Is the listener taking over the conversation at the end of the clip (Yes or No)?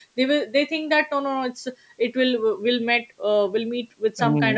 No